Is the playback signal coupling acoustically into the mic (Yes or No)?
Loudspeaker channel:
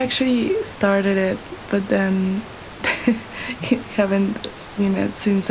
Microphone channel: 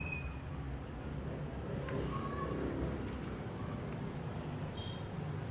No